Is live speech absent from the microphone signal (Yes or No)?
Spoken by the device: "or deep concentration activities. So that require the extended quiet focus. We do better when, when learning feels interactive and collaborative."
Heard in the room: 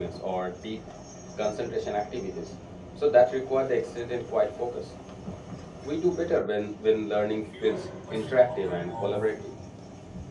No